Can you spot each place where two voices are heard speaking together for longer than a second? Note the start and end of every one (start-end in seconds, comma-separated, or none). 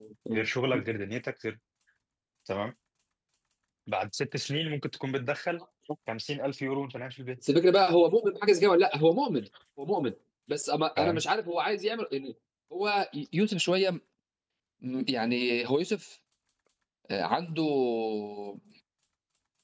none